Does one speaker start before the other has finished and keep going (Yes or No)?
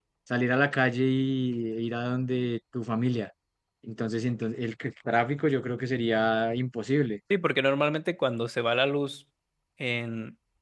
No